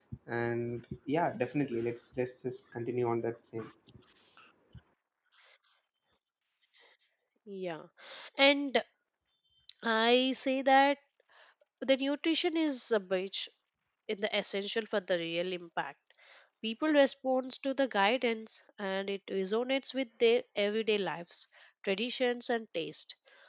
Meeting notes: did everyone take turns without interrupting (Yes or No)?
Yes